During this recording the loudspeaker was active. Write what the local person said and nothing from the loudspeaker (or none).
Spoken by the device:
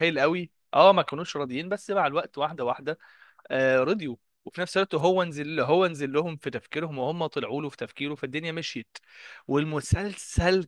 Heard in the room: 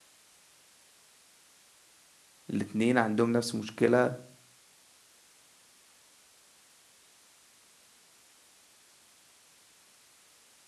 الاتنين عندهم نفس المشكله